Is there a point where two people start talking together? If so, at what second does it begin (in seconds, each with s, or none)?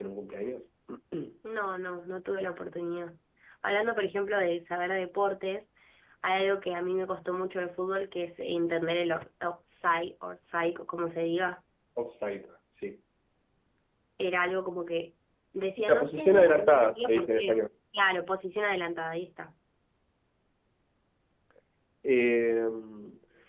15.8 s